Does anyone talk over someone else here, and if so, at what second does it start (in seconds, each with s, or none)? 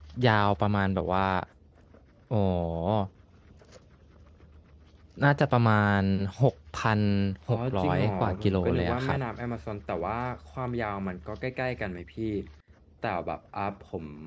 7.5 s